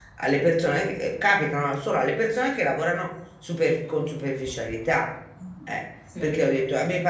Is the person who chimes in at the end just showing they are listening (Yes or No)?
Yes